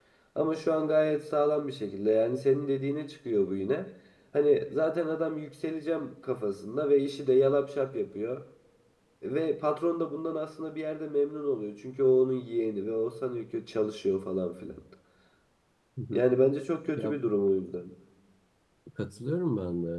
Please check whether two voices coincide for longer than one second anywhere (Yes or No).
No